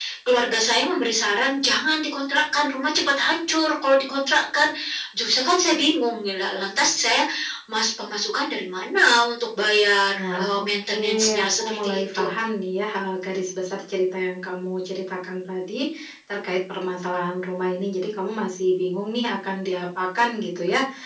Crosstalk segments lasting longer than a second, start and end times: 10.2-12.3

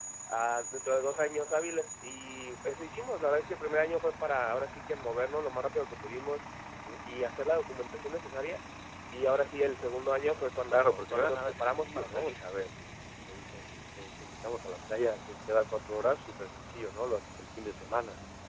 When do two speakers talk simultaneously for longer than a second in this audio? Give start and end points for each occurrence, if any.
10.6-12.4

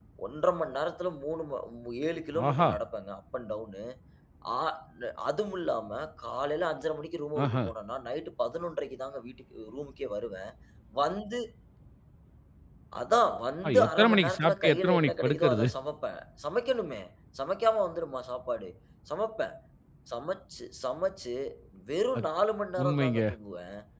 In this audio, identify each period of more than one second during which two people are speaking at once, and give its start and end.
13.7-15.7

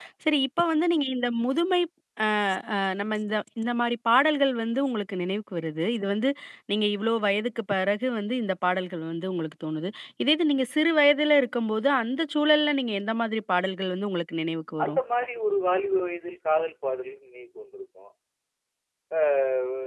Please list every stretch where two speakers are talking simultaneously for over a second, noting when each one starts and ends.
none

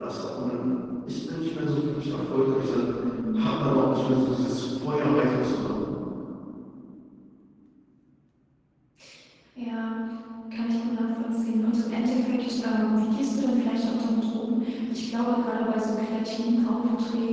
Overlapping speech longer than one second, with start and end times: none

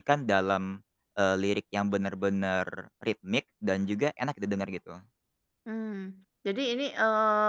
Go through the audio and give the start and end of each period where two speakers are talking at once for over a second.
none

